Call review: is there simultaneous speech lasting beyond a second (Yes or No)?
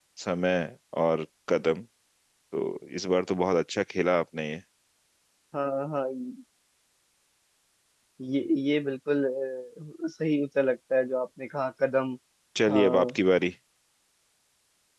No